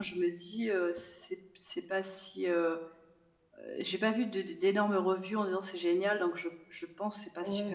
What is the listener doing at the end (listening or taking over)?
taking over